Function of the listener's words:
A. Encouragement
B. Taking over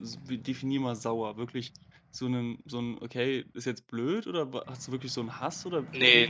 B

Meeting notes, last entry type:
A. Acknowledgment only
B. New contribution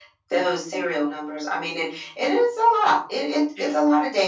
A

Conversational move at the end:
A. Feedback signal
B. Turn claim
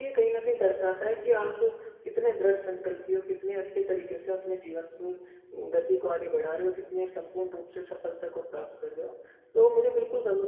A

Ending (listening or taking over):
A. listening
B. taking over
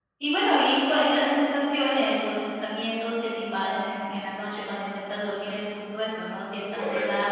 A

